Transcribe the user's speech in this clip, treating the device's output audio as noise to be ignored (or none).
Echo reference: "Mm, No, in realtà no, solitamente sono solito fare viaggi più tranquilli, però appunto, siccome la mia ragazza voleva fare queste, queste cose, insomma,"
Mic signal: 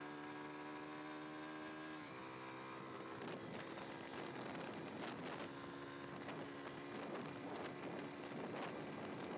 none